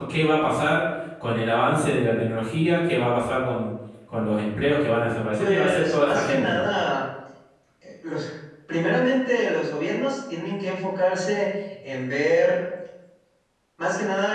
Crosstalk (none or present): present